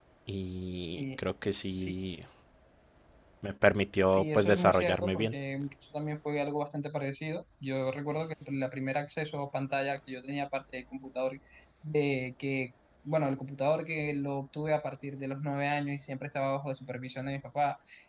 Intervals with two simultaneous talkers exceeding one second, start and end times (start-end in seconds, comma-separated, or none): 4.1-5.3